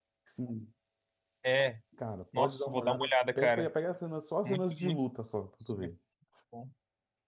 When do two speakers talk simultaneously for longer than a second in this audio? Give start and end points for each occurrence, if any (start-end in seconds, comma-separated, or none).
2.4-3.7